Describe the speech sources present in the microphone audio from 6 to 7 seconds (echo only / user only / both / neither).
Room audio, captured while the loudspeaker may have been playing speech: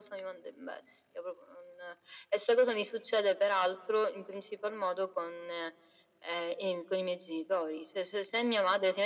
echo only